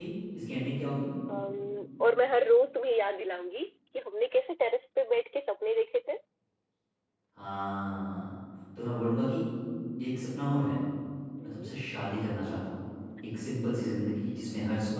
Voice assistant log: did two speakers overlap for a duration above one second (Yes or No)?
No